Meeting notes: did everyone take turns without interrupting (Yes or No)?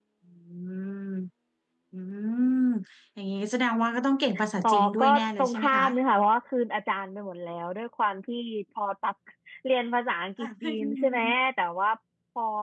No